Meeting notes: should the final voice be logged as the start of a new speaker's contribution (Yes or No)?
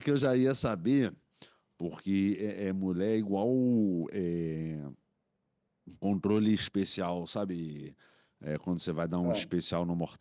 No